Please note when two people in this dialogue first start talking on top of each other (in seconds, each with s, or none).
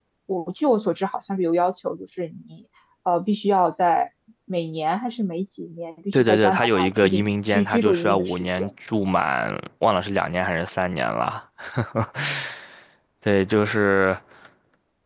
6.1 s